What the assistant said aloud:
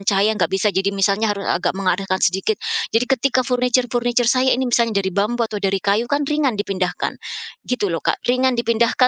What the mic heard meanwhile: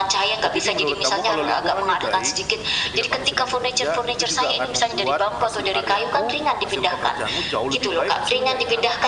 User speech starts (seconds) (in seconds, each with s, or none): 0.4 s